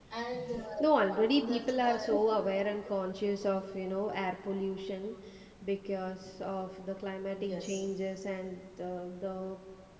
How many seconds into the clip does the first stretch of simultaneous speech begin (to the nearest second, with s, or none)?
1 s